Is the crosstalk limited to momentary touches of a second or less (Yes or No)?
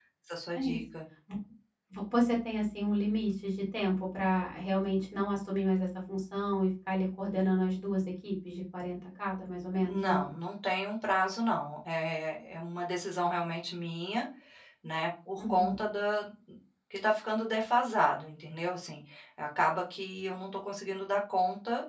Yes